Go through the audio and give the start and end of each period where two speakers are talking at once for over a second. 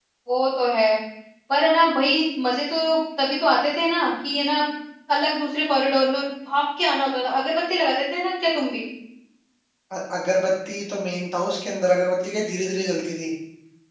none

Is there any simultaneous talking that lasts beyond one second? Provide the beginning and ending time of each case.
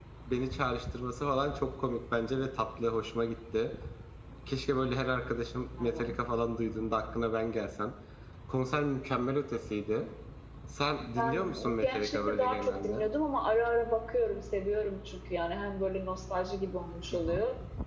11.2-13.0

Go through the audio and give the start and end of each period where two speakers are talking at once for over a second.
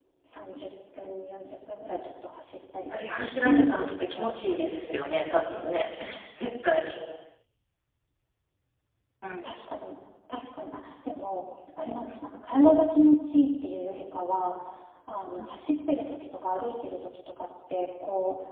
3.2-5.2

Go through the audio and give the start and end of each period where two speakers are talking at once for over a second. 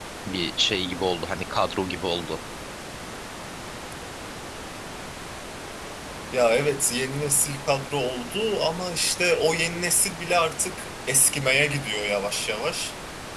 none

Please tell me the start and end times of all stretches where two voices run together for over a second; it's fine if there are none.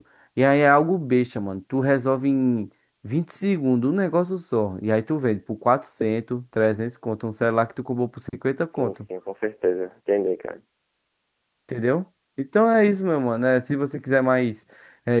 none

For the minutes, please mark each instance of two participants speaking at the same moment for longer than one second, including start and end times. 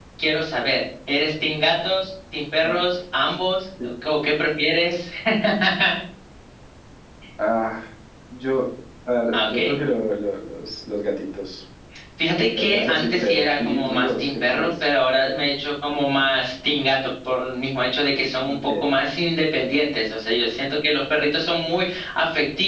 12.6-14.8

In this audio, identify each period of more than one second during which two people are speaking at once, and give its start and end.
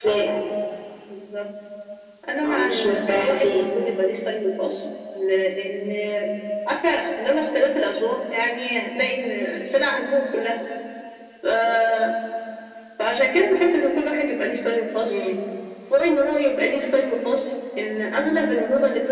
2.4-3.6

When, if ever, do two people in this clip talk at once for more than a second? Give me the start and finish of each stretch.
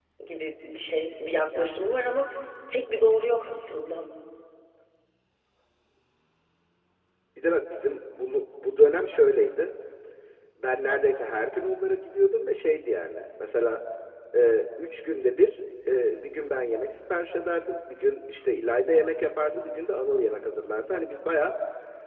none

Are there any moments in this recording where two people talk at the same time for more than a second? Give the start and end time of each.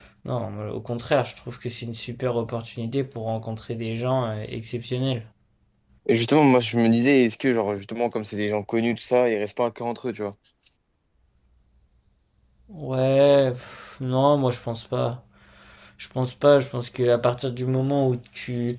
none

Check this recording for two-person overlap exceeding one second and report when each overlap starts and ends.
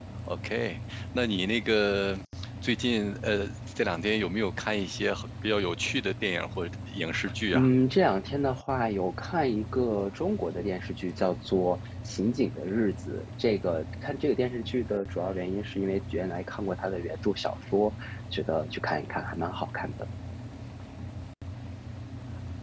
none

